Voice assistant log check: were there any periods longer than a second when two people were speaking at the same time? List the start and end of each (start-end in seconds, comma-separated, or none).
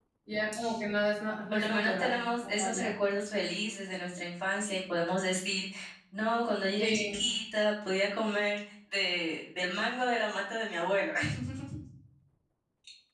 1.5-2.9